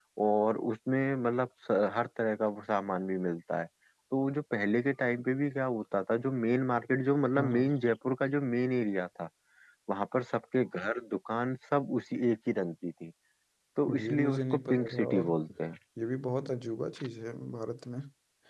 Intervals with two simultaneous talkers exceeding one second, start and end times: 13.9-15.3

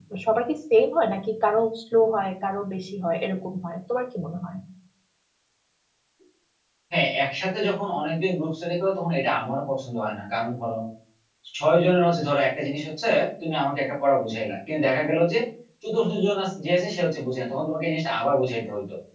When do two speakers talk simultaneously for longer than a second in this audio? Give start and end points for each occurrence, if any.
none

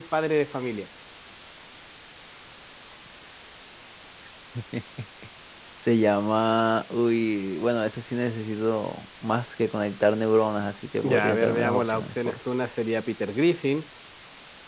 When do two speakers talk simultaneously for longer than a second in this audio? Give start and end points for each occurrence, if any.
11.0-12.4

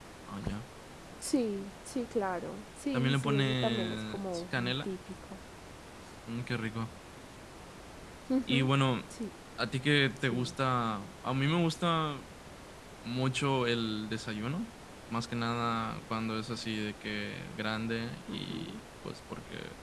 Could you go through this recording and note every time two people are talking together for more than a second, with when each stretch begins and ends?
2.9-4.9

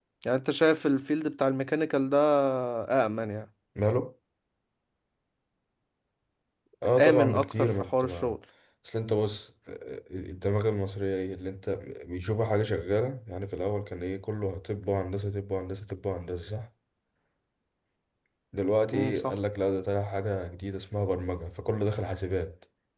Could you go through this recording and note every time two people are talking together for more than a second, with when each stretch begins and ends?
7.0-8.4

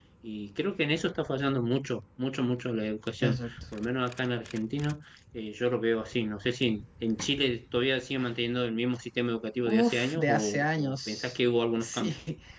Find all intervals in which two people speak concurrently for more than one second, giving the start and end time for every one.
9.6-11.4

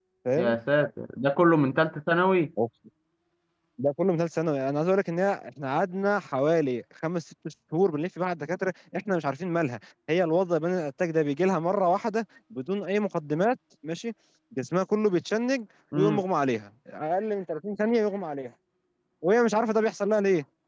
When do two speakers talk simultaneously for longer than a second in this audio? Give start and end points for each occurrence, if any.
none

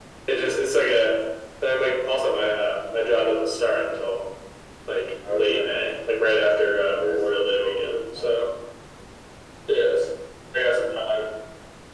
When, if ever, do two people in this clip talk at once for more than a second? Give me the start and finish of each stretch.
7.0-8.5

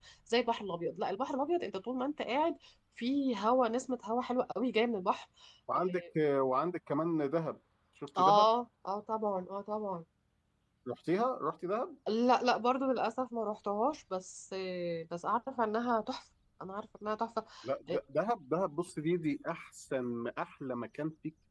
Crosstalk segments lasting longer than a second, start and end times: none

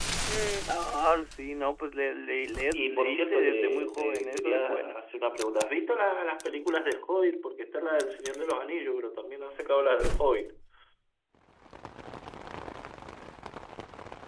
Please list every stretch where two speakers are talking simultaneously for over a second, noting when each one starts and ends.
2.7-5.0

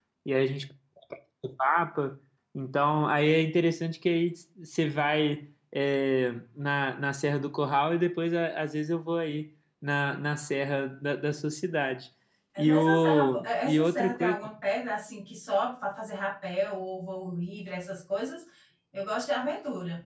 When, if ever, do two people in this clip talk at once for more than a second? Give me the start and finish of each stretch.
12.6-14.4

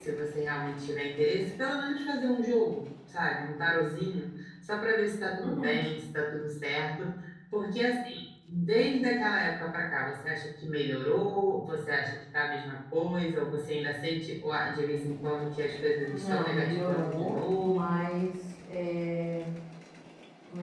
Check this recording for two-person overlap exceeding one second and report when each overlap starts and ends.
16.2-18.1

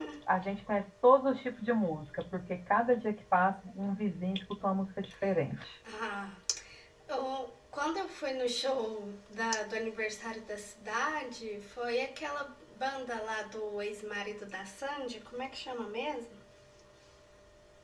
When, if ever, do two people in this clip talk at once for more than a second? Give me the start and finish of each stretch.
none

